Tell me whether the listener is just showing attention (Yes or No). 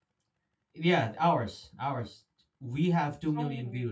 No